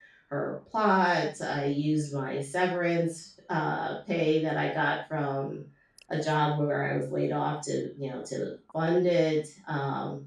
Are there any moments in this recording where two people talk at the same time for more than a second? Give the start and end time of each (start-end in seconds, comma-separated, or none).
none